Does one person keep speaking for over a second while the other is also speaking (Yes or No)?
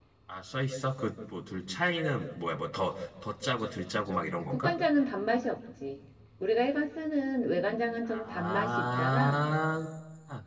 Yes